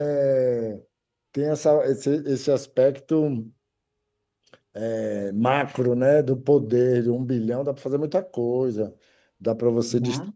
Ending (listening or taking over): listening